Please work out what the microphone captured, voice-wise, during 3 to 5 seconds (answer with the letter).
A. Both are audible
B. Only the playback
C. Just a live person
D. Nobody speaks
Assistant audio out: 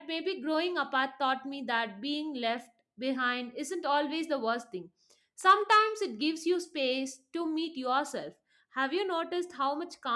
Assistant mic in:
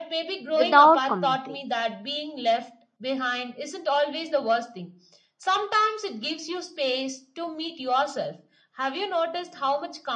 B